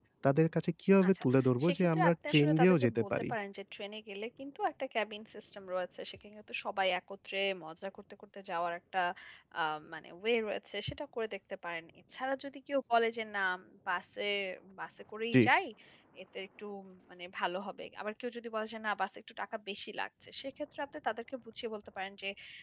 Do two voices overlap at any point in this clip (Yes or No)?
Yes